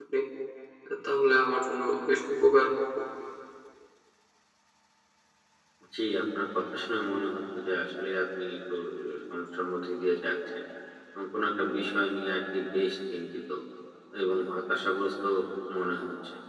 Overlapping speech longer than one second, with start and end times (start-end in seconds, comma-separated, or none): none